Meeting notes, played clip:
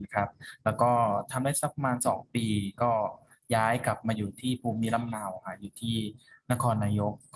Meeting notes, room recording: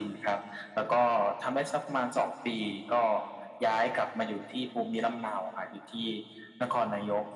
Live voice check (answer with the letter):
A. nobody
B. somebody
A